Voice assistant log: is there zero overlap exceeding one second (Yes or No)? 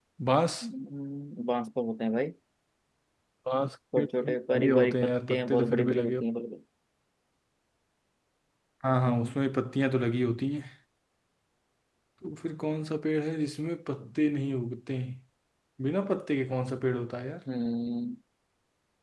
No